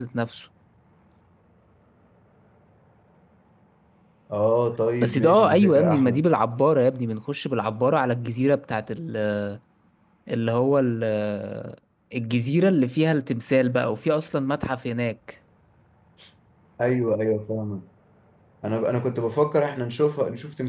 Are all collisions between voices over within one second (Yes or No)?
No